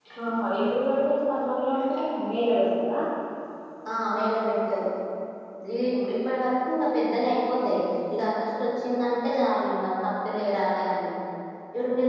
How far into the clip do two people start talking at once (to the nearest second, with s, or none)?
none